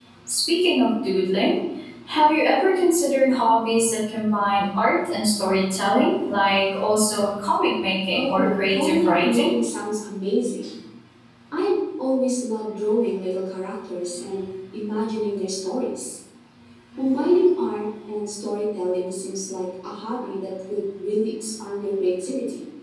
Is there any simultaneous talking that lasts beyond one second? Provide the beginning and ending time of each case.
8.1-9.6

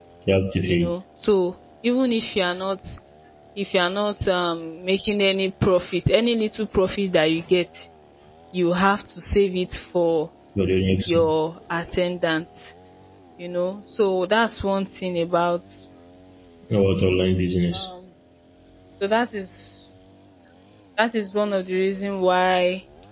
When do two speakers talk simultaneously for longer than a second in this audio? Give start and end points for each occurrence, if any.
none

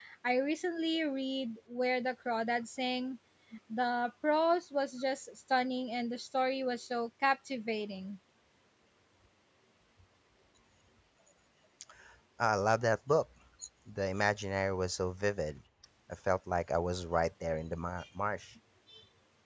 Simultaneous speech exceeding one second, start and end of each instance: none

